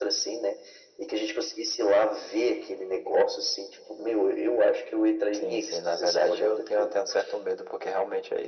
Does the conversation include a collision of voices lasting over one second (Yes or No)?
Yes